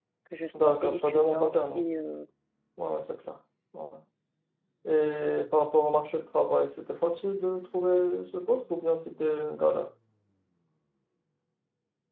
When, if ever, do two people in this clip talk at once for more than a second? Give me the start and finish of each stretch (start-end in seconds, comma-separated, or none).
0.6-1.9